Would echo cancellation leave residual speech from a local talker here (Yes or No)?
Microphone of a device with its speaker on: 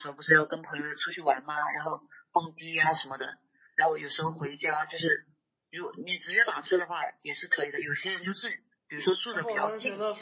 Yes